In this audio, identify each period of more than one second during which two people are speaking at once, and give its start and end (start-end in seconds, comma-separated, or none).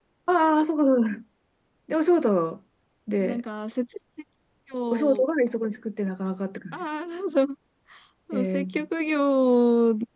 none